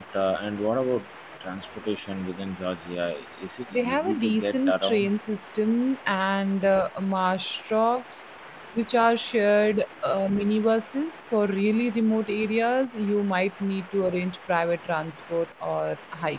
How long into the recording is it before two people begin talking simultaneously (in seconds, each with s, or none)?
3.7 s